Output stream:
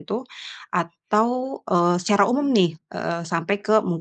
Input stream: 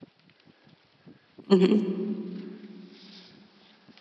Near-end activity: present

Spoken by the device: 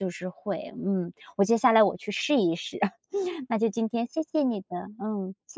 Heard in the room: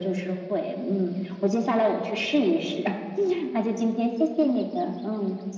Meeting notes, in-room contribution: none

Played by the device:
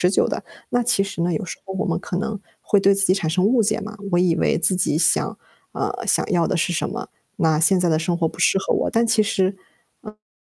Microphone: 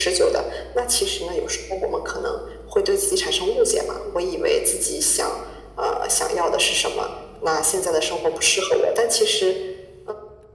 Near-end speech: none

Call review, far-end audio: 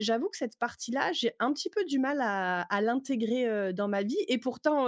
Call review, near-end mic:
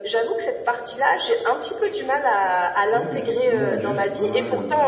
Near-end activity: present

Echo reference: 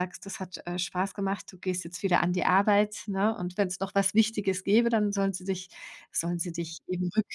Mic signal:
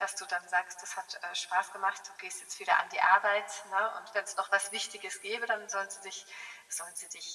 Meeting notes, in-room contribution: none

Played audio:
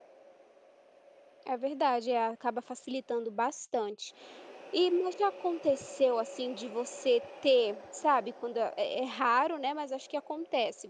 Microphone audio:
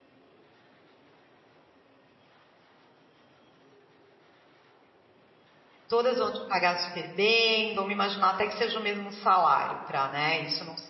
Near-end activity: present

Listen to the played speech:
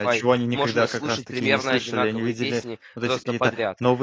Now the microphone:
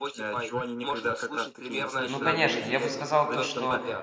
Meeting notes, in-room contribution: present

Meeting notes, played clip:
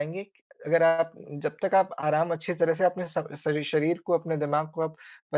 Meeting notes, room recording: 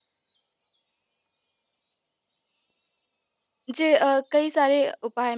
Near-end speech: present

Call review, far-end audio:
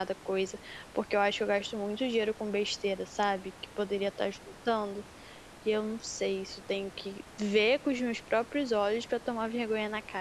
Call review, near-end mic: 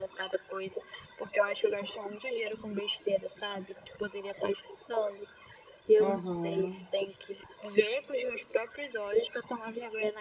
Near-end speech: present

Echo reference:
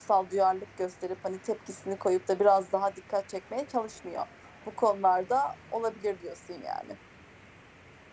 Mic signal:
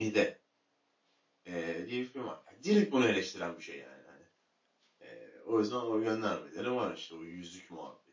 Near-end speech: present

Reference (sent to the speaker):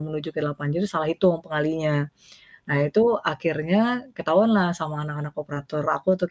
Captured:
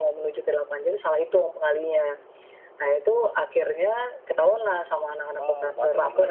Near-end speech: present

